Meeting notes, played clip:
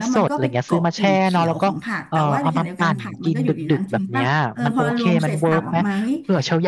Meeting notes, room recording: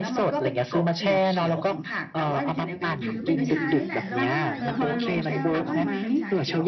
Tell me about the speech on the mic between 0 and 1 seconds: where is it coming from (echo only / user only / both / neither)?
echo only